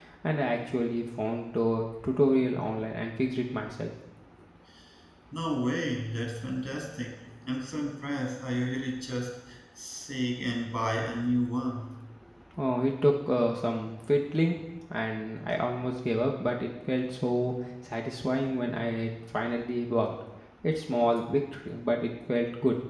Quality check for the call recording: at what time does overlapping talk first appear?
none

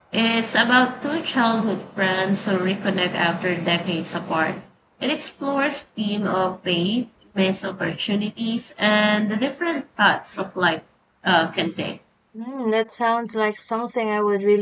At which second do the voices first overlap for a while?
none

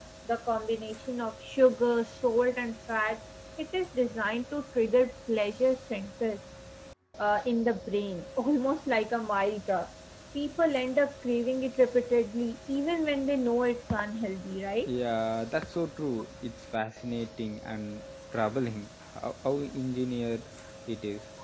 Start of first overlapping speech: none

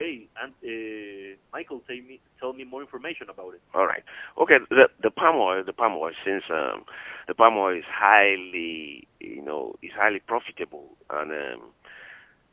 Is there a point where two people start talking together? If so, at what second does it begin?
none

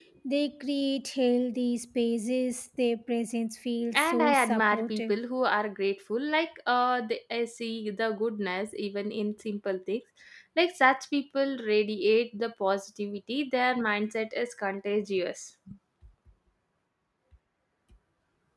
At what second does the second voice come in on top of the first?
3.9 s

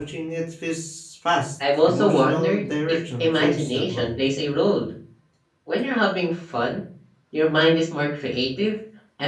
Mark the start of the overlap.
1.6 s

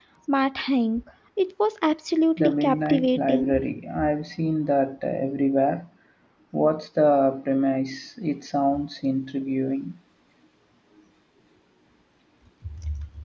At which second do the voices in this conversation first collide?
2.4 s

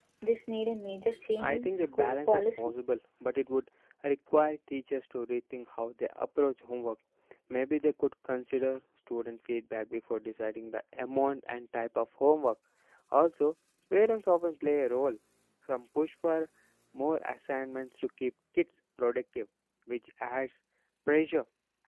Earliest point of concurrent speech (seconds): 1.3 s

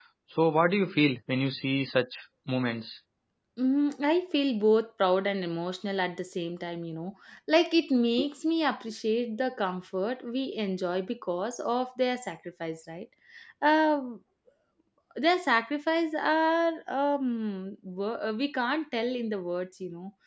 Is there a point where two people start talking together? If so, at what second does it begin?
none

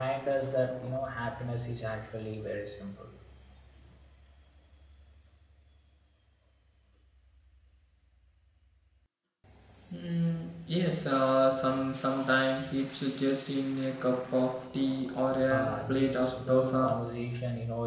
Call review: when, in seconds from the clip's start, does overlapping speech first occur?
15.5 s

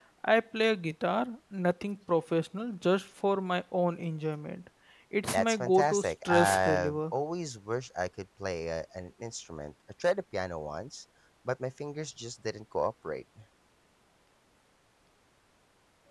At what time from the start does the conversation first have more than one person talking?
5.3 s

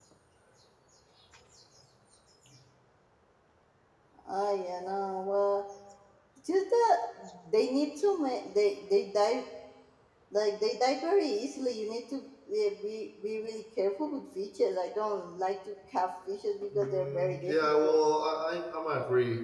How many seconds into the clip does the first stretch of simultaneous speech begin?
16.7 s

